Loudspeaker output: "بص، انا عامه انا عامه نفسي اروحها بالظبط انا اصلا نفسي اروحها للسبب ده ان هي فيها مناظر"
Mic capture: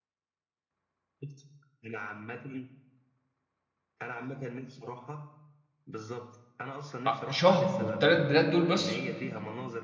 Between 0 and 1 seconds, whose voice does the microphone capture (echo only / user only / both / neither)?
neither